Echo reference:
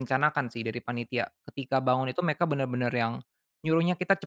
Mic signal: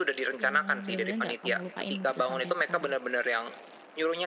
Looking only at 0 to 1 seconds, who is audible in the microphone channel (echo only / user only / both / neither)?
both